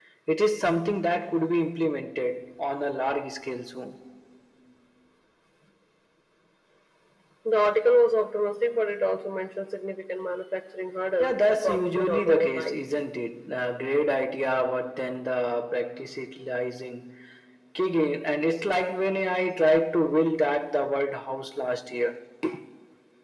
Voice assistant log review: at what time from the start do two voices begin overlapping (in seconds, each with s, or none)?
11.2 s